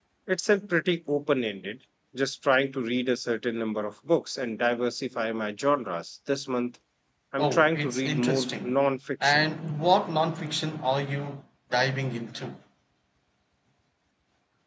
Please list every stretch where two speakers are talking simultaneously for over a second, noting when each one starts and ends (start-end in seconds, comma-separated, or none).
7.4-8.7